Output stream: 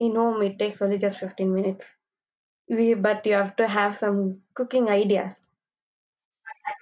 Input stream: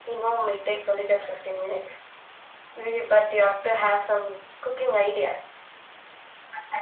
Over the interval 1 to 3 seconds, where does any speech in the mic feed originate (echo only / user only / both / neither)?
echo only